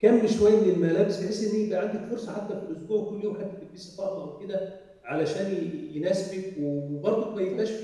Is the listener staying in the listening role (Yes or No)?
Yes